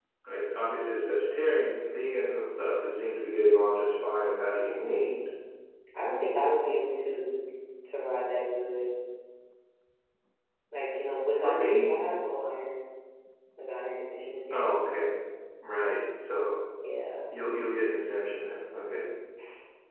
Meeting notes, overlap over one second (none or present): none